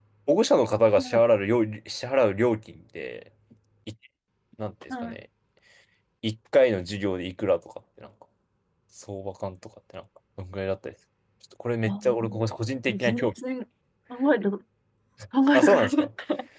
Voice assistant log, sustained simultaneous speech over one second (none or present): none